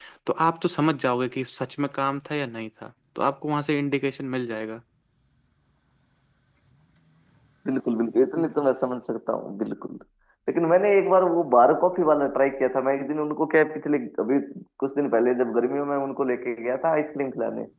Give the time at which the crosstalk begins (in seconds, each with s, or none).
none